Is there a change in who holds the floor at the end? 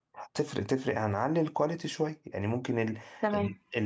No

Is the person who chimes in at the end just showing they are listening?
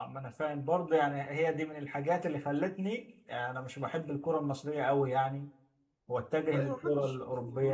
No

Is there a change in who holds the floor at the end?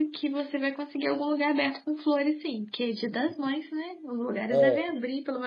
No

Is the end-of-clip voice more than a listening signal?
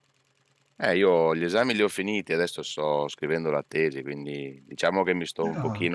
No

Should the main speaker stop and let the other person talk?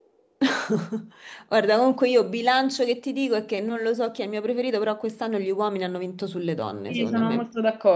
Yes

